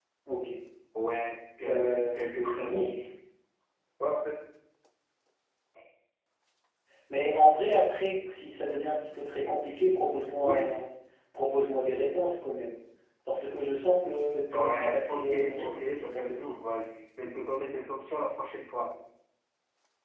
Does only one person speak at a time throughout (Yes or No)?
No